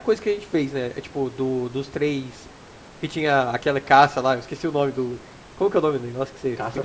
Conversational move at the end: taking over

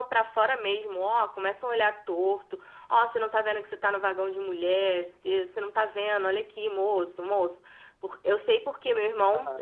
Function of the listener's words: taking over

